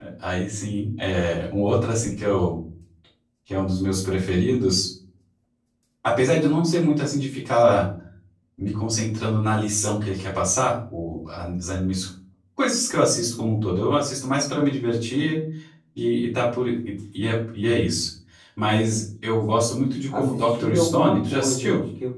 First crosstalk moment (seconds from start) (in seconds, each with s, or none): 20.1 s